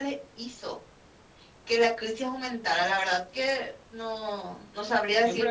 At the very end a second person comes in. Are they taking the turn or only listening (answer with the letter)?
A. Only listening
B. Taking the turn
B